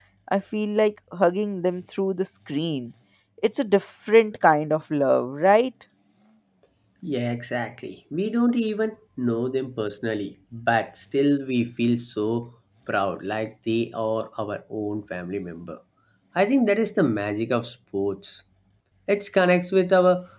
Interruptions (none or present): none